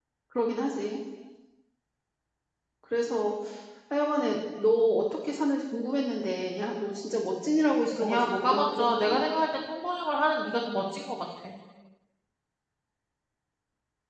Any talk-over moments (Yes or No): Yes